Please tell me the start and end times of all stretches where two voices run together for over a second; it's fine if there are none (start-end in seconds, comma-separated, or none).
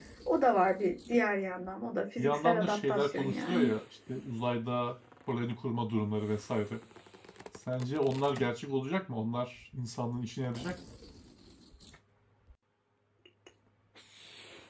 2.2-3.7